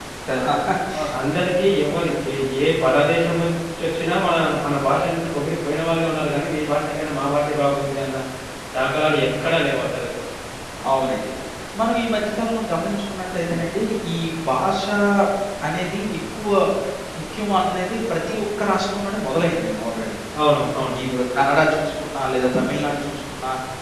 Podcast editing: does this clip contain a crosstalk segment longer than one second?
No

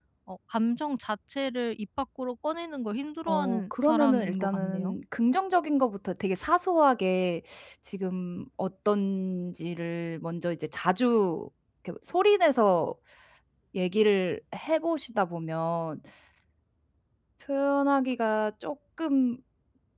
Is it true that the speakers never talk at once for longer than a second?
No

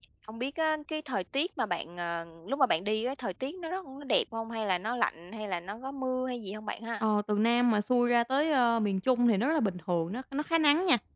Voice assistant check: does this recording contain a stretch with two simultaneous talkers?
No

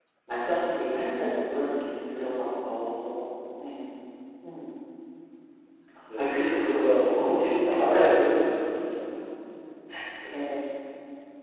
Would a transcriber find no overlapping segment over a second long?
No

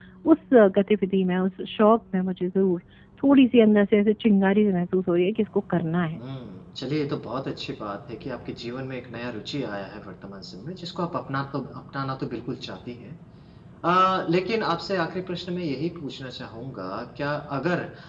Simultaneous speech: No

